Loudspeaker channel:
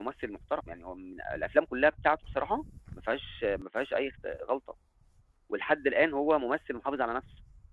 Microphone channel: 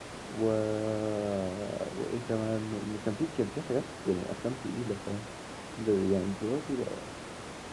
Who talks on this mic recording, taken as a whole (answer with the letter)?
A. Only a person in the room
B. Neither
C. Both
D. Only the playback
A